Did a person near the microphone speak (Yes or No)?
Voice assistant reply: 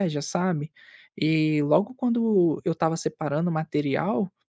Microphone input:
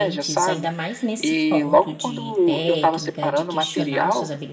Yes